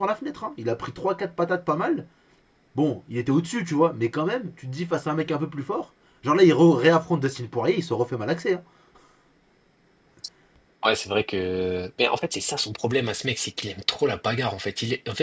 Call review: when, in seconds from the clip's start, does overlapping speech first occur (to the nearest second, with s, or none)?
none